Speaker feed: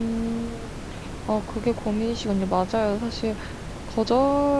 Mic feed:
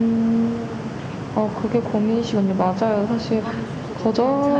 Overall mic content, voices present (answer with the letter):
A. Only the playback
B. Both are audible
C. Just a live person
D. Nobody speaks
B